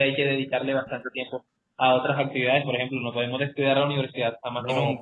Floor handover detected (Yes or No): Yes